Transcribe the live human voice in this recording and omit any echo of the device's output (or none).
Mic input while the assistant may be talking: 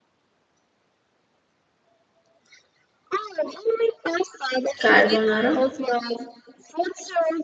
carbonara.